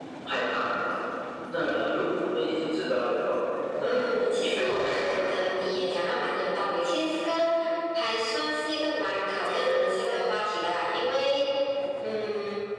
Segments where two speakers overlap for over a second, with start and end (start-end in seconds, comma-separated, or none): 3.8-5.2